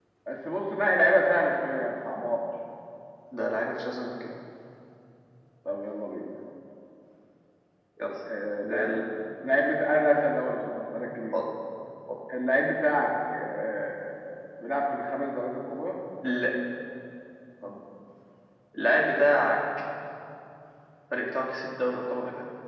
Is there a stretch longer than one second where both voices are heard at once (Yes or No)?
No